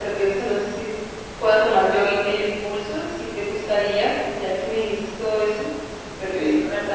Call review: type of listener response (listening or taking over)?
listening